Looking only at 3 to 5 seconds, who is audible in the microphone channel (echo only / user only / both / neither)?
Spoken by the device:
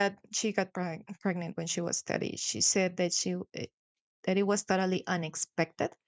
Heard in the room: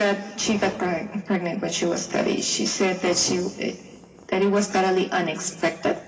echo only